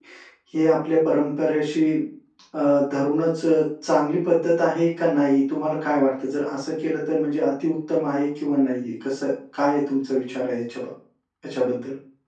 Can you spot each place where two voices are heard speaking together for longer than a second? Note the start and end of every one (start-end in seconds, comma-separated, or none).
none